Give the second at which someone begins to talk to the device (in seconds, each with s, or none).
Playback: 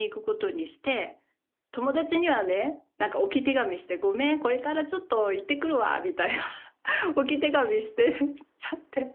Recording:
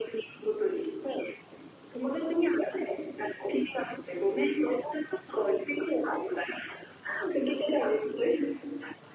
none